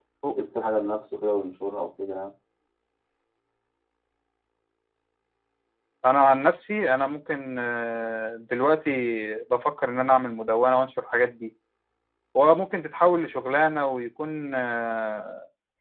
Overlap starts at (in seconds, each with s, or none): none